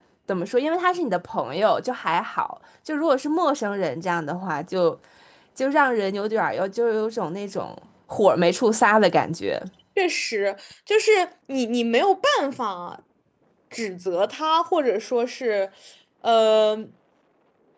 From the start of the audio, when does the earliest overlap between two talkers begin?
none

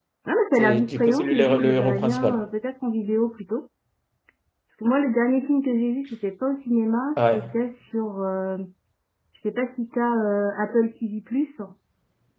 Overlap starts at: 0.6 s

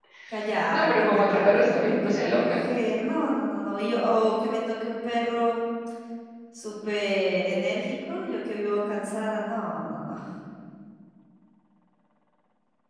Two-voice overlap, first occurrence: 0.7 s

